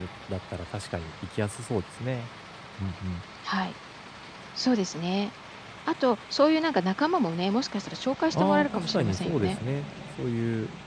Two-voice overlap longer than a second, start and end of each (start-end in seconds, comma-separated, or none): 8.3-9.6